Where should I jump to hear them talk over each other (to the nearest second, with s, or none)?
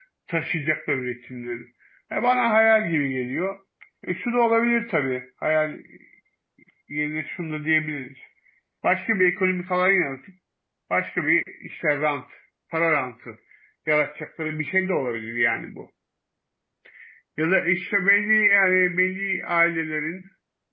none